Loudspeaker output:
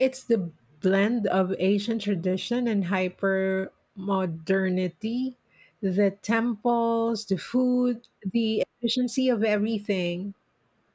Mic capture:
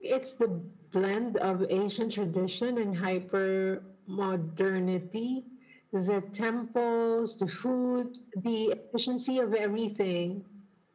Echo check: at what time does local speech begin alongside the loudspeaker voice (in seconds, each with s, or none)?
none